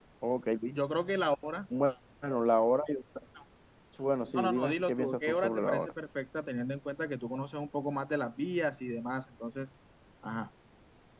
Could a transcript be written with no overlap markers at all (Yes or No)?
No